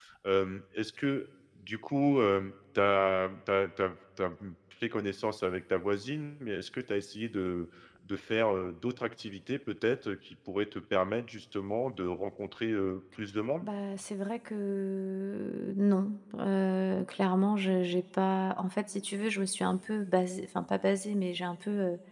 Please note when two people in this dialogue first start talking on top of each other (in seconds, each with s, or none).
none